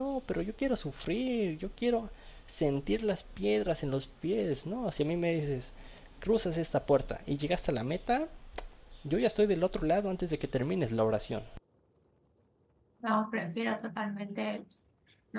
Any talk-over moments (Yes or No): No